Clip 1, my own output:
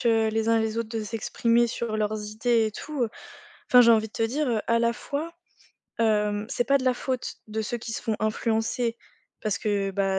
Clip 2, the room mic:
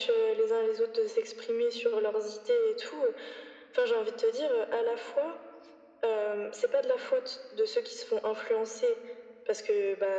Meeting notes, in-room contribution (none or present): none